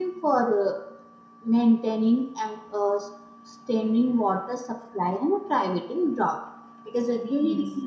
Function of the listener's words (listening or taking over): listening